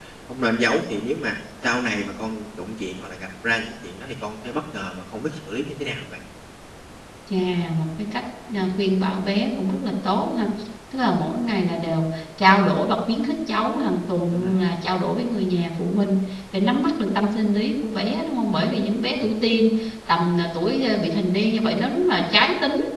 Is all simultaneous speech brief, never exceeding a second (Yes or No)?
Yes